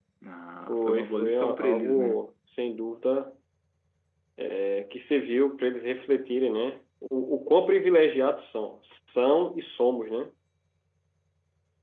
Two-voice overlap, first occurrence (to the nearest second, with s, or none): 1 s